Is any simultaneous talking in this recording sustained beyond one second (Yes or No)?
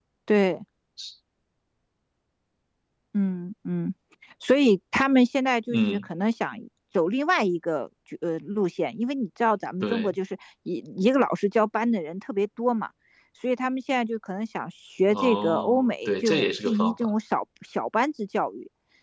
Yes